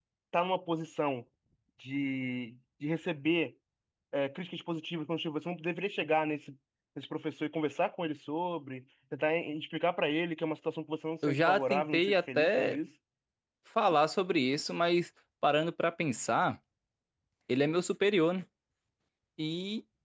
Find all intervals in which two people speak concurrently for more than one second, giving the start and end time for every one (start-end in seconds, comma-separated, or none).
11.3-12.8